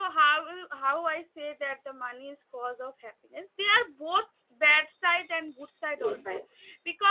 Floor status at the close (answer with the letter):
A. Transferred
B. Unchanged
B